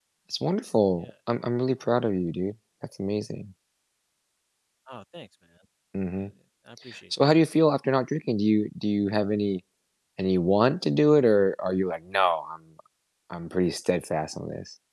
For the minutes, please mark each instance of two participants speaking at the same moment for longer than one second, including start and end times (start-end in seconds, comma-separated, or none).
none